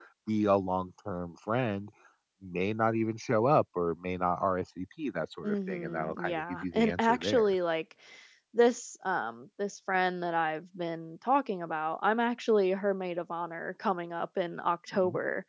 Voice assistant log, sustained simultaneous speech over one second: present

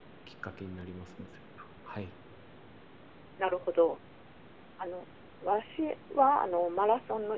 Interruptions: none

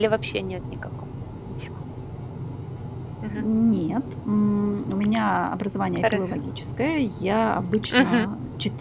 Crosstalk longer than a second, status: none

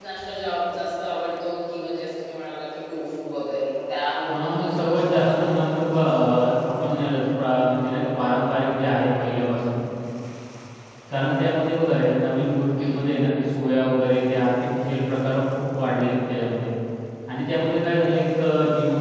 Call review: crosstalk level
present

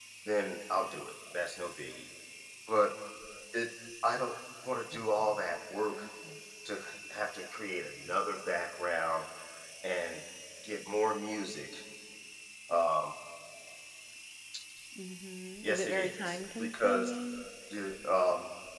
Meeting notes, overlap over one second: present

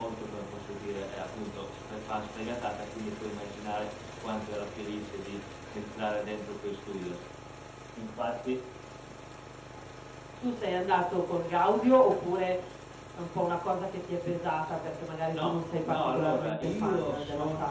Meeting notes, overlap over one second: present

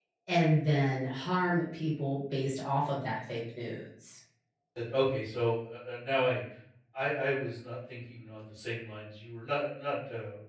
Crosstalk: none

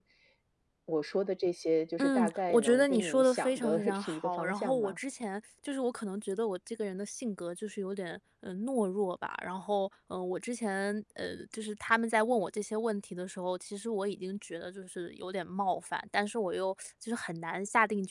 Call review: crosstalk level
present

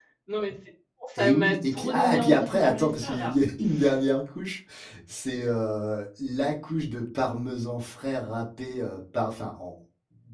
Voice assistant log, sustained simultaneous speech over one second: present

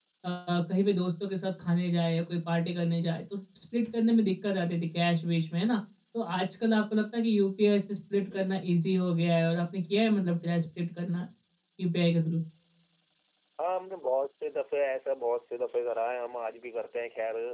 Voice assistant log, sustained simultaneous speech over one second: none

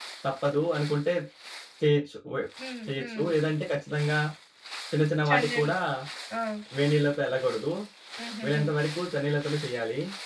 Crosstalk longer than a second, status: none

